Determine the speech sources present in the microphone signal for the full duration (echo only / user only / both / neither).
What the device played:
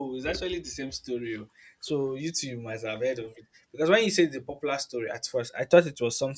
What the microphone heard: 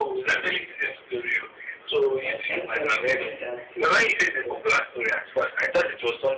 both